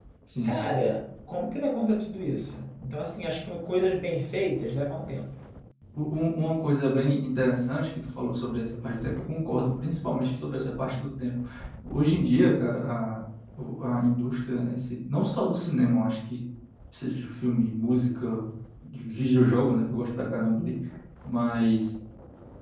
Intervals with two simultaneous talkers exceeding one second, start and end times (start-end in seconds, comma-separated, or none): none